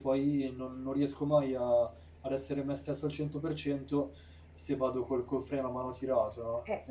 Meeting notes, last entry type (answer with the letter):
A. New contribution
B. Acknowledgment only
A